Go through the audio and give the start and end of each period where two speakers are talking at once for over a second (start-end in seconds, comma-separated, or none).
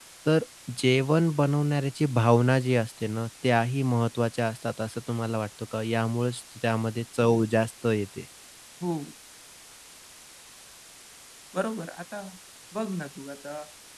none